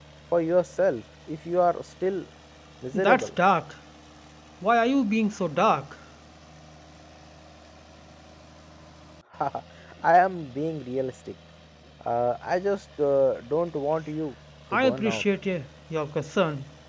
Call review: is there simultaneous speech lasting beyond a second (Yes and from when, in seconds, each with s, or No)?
No